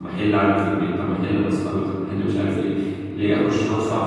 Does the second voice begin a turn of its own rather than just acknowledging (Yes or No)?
No